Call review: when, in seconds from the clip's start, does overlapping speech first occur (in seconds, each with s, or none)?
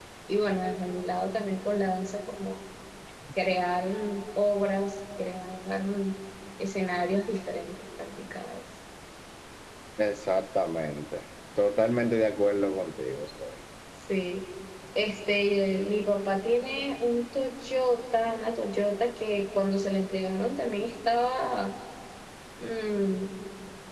none